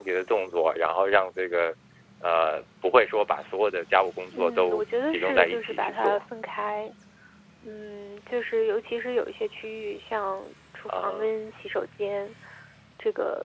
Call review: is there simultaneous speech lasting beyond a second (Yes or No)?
Yes